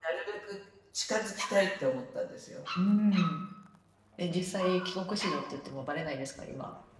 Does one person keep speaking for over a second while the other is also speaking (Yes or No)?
No